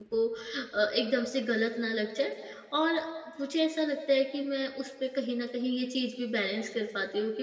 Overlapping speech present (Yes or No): No